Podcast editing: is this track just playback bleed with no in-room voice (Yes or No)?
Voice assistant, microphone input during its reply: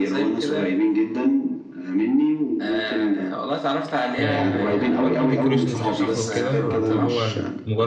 No